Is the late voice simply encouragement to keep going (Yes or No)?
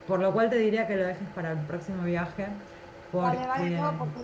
No